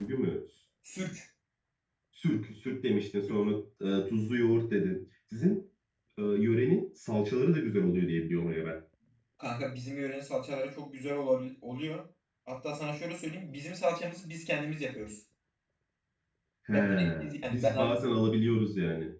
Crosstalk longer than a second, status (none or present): present